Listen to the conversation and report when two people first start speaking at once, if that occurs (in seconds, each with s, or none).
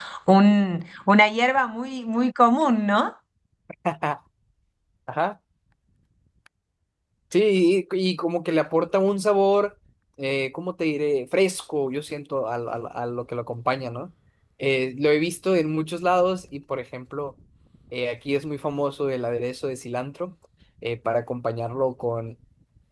none